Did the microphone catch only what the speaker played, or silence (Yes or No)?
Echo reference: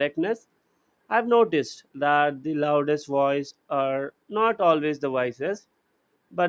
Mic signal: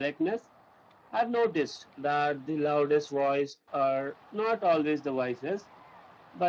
Yes